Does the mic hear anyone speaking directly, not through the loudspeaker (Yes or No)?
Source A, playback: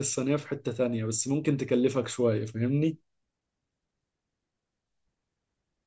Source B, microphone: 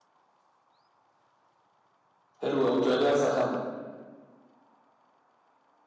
Yes